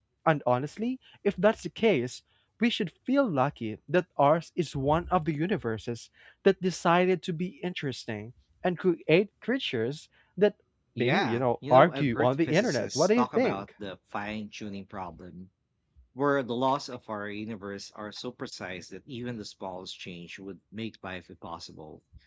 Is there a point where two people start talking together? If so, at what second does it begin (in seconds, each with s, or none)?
11.0 s